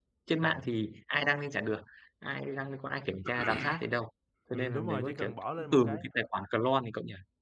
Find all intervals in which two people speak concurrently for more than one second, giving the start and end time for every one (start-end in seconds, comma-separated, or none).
4.5-6.0